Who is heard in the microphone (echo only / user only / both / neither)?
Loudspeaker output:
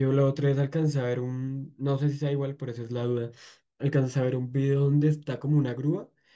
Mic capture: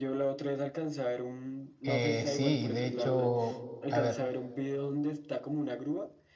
both